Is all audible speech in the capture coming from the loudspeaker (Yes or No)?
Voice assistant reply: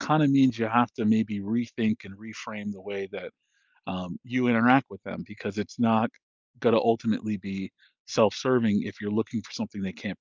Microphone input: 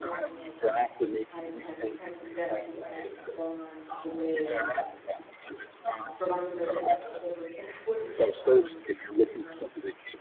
No